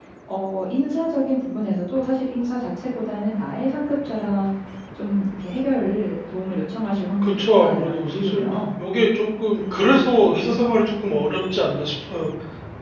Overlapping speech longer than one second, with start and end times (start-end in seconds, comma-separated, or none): 7.2-8.4